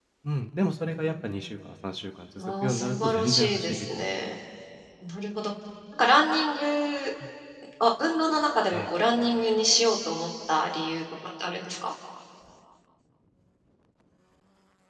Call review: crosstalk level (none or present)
present